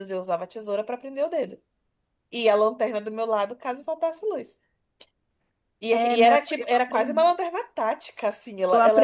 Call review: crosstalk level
present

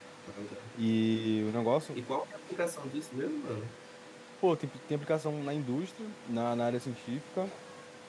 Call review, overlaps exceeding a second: none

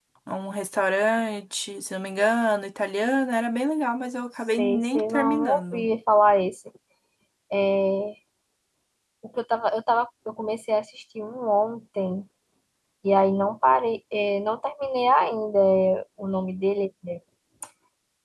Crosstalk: present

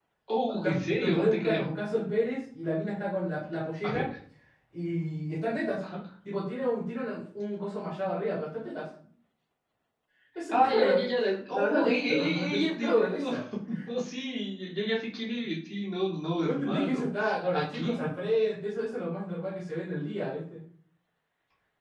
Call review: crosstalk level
present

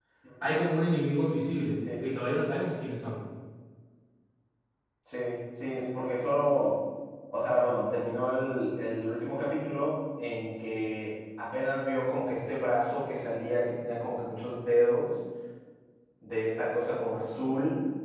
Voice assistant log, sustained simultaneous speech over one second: none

